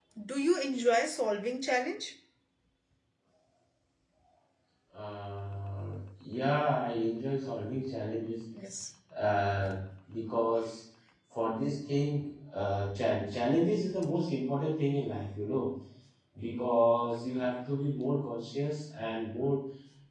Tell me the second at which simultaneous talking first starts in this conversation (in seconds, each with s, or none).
none